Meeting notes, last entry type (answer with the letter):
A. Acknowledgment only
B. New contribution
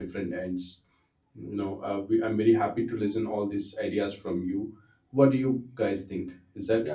B